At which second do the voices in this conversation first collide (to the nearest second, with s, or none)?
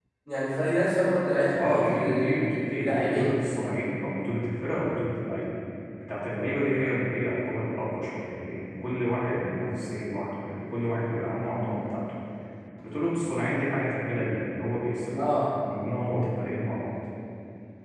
2 s